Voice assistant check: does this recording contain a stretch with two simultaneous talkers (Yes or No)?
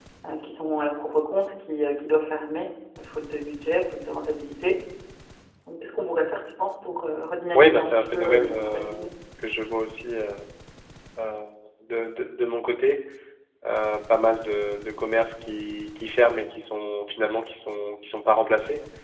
Yes